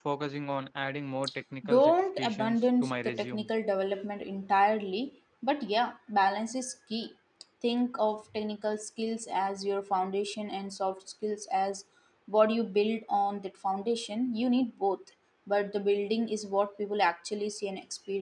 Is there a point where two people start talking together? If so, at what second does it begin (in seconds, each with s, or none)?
1.7 s